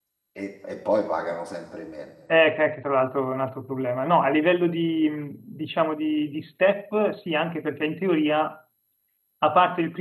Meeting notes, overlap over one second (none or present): none